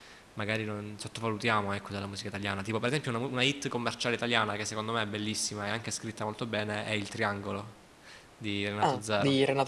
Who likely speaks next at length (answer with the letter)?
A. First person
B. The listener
B